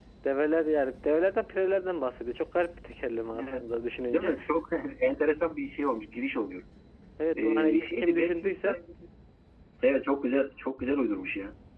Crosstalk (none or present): present